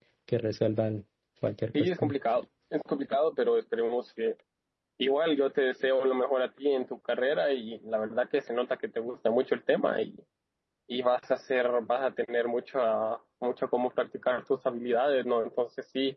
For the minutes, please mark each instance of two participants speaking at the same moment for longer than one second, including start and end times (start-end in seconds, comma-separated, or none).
none